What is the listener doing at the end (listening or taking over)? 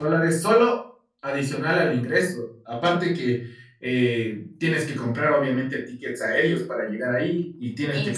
listening